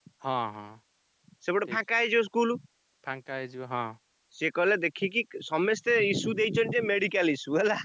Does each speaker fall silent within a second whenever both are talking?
Yes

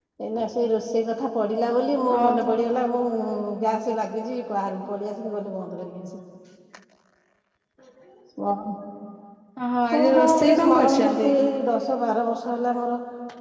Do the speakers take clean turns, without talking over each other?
No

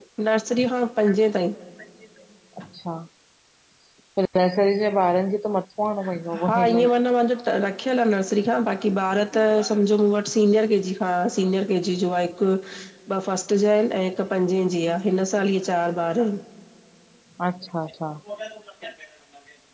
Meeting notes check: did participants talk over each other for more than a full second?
No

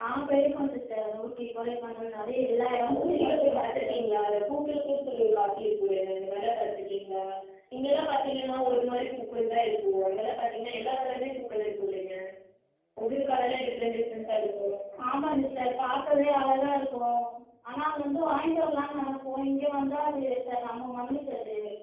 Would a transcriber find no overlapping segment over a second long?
No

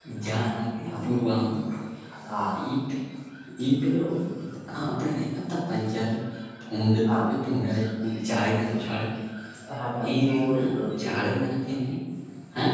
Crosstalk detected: Yes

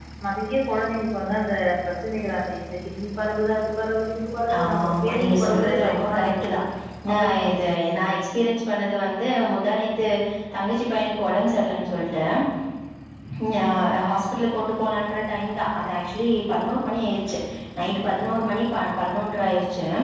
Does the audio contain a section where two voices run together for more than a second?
Yes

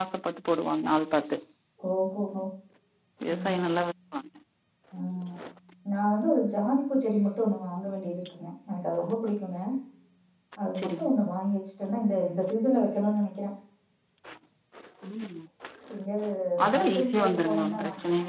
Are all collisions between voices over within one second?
No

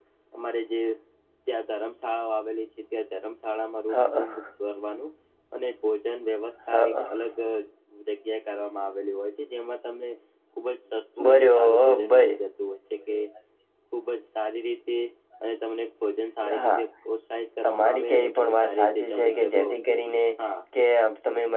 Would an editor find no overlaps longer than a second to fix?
No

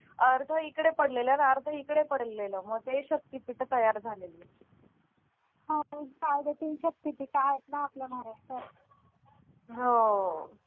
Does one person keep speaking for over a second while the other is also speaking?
No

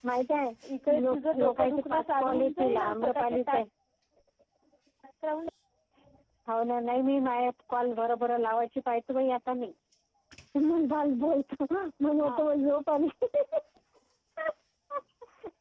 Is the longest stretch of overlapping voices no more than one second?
No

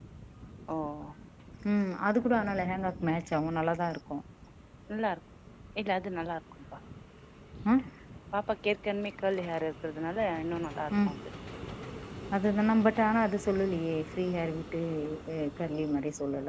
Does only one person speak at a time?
Yes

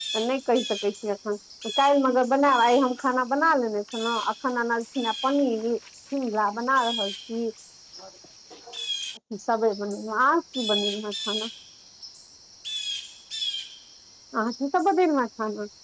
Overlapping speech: No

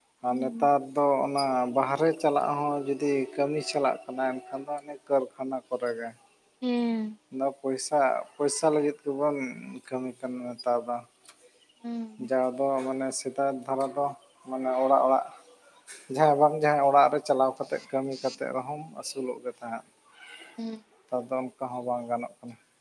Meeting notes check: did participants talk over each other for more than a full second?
No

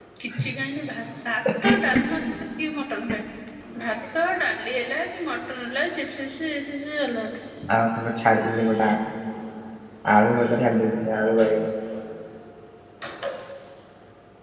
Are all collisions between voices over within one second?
Yes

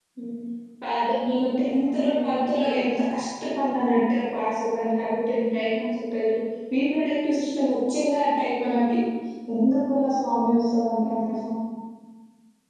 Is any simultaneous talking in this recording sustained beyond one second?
Yes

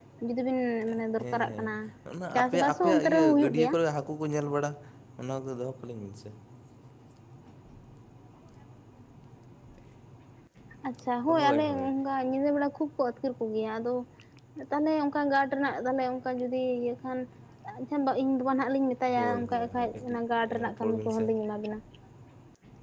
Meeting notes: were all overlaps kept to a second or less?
No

